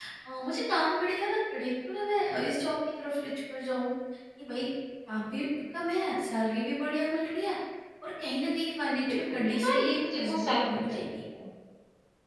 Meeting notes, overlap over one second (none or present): present